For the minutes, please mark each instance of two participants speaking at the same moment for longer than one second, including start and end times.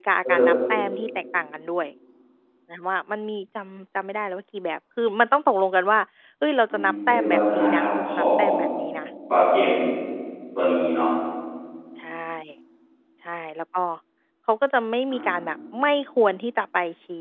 6.7-8.5

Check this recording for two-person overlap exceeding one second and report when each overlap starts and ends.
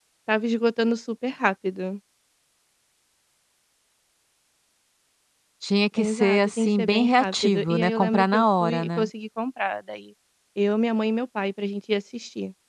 6.0-9.1

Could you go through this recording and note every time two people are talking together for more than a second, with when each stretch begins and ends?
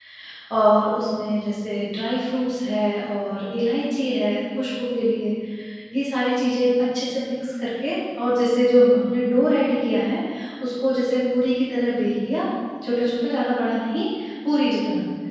none

